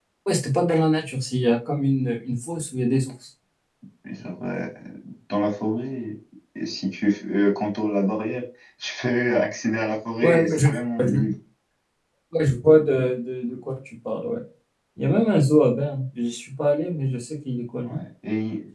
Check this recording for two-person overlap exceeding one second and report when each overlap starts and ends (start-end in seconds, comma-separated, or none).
none